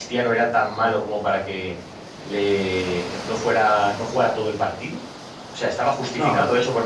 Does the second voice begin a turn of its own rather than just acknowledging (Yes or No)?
No